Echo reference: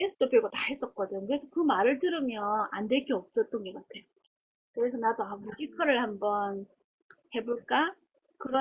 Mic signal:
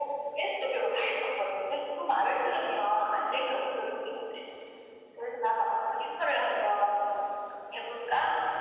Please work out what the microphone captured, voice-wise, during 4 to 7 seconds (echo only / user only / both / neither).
echo only